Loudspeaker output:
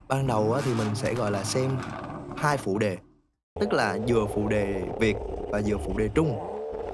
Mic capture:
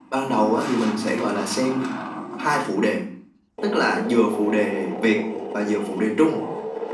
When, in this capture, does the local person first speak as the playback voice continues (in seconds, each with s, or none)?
none